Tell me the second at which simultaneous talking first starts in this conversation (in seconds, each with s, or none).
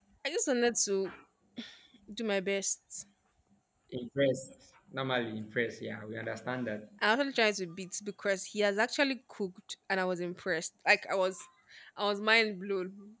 none